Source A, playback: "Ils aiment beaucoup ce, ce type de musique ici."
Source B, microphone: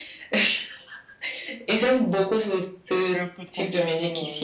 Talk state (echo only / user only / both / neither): both